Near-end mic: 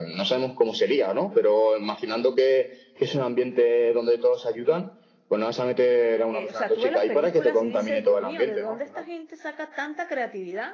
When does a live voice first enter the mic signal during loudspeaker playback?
6 s

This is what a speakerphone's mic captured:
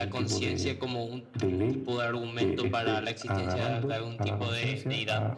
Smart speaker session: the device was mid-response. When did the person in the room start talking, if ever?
none

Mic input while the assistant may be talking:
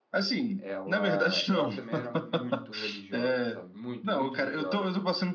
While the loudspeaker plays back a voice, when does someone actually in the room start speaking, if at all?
1 s

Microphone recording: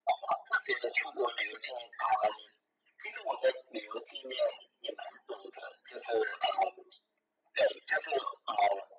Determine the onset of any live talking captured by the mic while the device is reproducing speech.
none

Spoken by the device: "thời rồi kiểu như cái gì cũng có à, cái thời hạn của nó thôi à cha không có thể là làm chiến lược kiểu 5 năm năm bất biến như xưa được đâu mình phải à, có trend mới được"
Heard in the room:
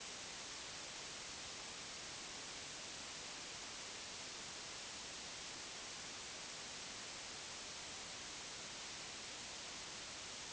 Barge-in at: none

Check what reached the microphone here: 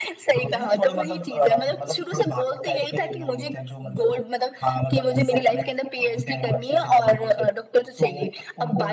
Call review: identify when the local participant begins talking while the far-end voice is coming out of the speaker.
none

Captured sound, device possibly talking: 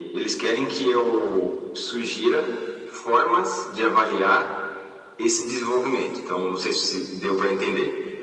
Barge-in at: none

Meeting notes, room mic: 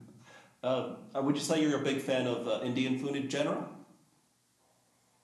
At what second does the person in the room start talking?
none

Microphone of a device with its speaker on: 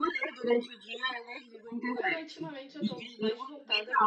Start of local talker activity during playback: 2 s

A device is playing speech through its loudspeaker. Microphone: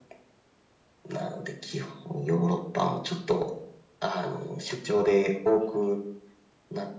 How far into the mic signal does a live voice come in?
none

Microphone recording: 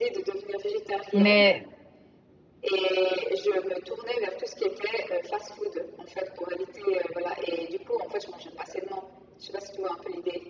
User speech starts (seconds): 1 s

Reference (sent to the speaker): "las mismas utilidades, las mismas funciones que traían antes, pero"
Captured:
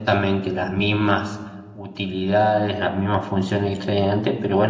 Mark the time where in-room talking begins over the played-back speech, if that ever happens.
none

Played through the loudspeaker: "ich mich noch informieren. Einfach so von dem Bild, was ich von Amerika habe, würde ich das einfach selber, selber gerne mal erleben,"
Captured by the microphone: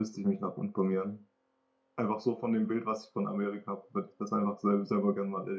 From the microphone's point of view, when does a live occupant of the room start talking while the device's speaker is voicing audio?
none

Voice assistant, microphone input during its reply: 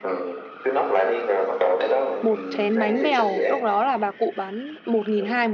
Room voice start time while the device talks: 2 s

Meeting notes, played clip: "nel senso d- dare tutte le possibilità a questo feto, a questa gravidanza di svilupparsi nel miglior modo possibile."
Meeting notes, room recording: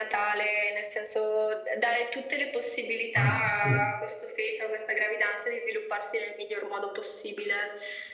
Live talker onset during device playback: 3 s

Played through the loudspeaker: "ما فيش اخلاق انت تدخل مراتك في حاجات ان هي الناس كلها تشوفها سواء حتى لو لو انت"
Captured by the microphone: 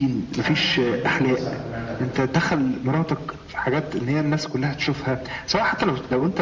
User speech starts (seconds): 0 s

